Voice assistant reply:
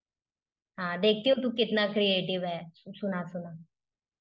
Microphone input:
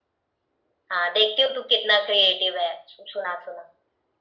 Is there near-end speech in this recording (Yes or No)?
No